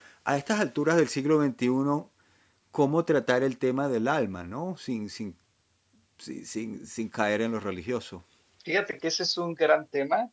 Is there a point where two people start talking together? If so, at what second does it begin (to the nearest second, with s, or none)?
none